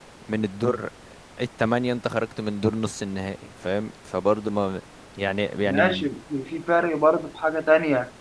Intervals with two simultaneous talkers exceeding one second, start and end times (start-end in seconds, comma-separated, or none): none